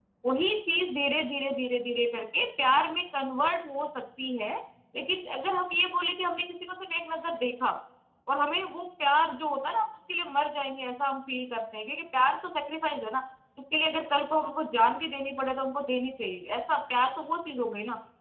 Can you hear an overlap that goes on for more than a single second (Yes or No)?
No